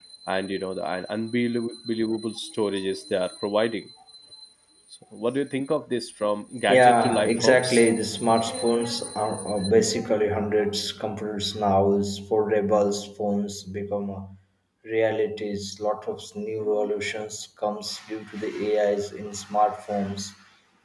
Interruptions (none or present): present